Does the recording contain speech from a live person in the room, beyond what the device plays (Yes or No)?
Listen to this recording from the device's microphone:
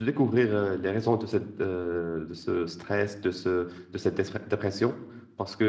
Yes